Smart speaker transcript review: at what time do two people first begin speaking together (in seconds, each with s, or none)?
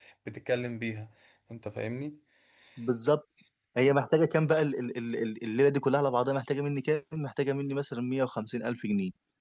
none